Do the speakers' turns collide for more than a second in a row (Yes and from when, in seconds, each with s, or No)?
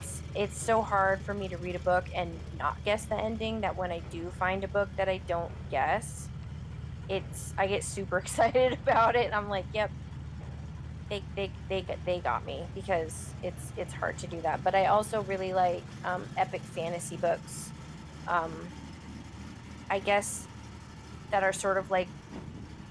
No